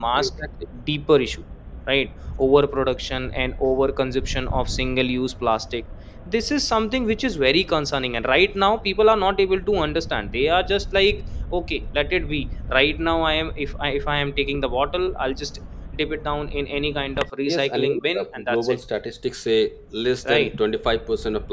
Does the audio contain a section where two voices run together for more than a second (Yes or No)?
Yes